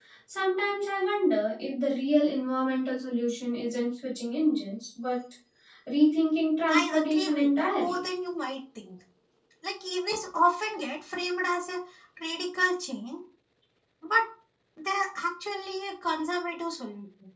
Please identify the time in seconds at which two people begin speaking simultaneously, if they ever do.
6.7 s

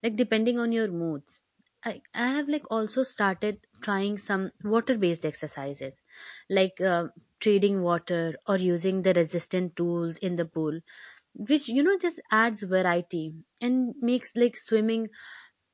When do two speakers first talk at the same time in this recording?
none

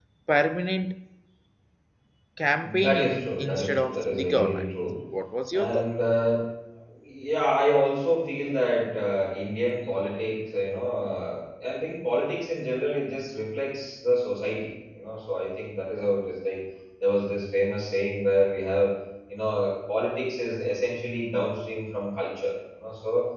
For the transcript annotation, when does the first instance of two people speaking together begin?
2.6 s

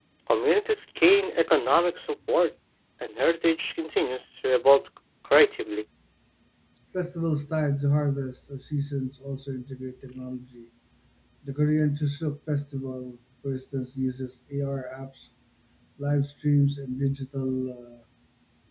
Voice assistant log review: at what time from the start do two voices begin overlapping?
none

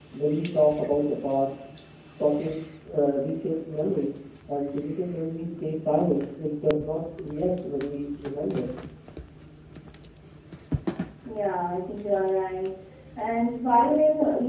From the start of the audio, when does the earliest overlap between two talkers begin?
none

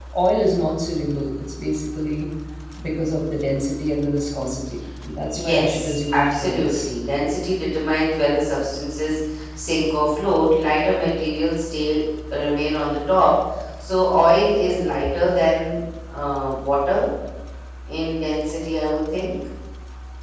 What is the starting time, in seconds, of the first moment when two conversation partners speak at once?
5.4 s

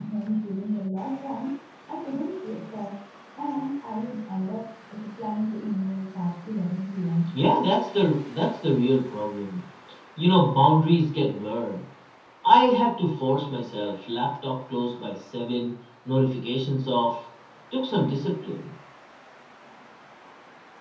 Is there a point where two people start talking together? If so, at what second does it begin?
none

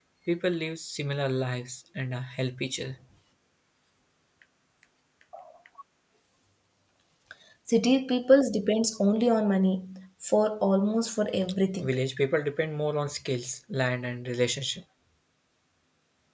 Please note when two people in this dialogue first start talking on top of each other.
none

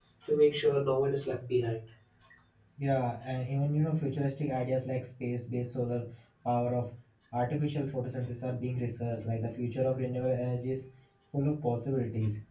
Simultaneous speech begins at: none

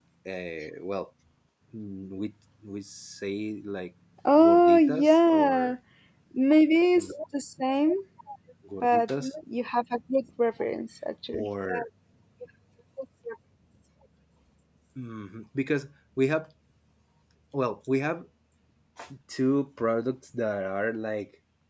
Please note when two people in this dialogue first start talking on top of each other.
4.4 s

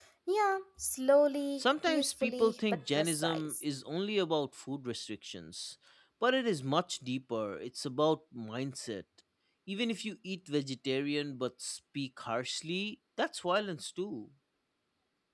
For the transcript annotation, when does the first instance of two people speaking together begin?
1.6 s

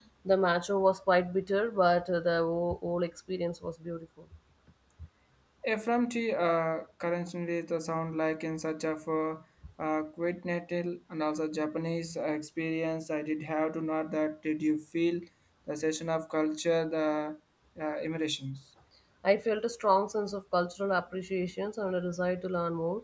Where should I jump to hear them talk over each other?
none

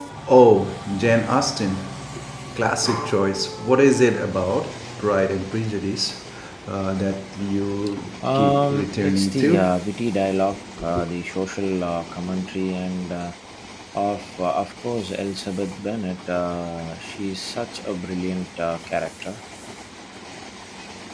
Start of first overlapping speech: 8.2 s

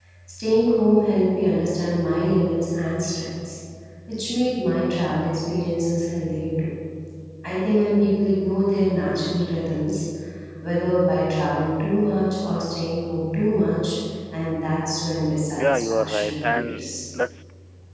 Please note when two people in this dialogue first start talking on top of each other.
15.6 s

